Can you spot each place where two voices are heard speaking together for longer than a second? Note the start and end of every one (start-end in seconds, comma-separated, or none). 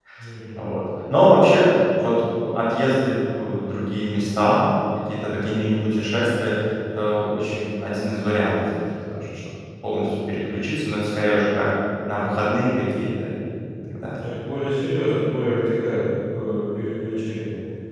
none